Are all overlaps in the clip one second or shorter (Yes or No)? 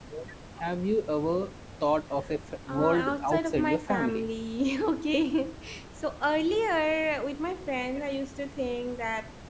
No